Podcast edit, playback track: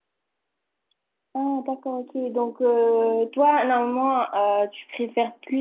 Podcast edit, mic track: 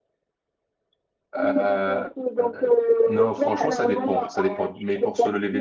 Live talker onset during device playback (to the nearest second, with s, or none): 1 s